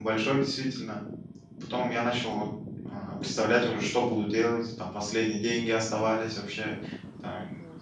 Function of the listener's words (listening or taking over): listening